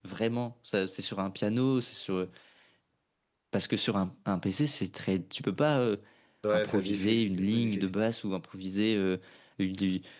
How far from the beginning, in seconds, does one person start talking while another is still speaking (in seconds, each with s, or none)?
6.5 s